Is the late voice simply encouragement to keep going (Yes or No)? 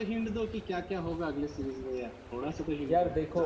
No